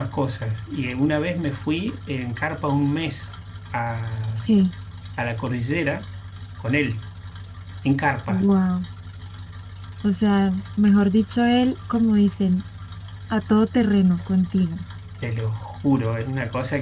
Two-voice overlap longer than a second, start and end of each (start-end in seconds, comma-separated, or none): none